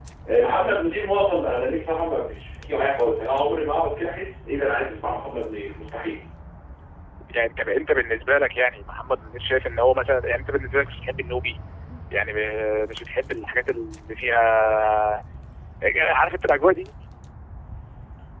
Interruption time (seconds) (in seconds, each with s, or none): none